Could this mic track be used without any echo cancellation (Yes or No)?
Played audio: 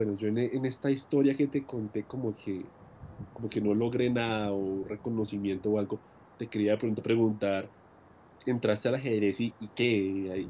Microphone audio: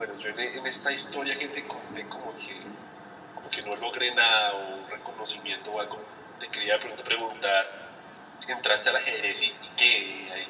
No